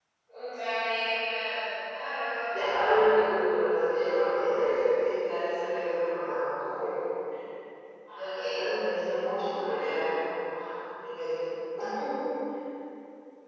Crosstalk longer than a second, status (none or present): none